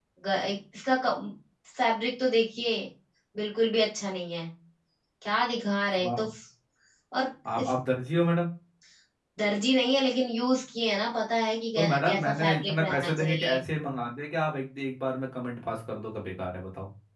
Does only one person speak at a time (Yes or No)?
No